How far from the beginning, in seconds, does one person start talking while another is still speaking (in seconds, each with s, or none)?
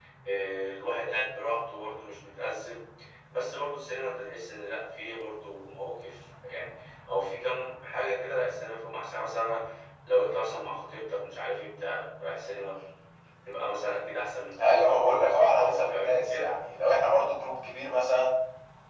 14.6 s